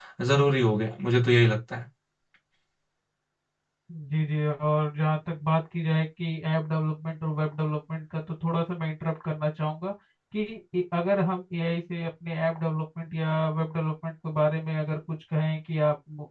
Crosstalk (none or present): none